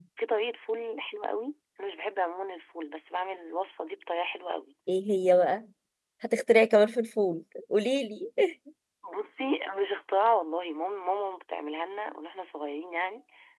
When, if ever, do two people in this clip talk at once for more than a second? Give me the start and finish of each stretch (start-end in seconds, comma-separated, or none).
none